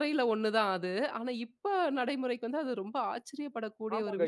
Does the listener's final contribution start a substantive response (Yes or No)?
Yes